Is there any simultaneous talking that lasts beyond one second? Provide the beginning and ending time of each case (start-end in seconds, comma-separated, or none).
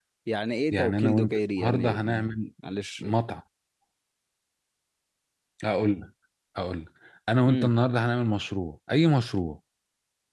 0.7-2.3